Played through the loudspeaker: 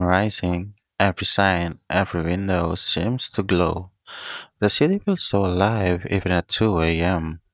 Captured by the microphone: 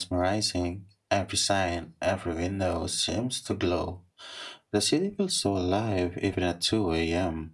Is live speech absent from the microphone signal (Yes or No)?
Yes